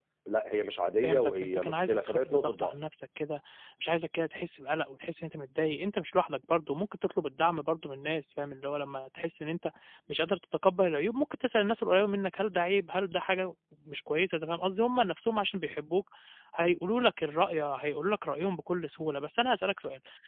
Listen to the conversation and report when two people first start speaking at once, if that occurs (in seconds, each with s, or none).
1.0 s